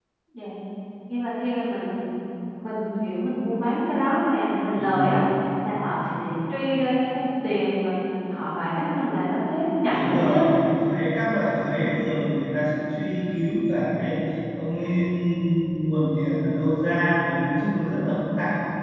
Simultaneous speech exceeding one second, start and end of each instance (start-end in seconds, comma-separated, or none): none